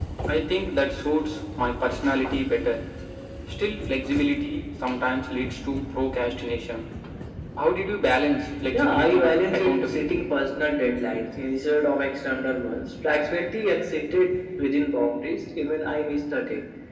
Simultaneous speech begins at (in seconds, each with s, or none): 8.7 s